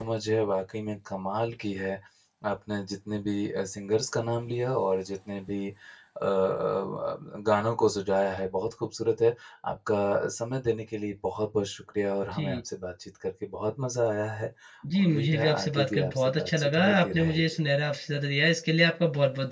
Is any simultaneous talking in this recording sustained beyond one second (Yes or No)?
Yes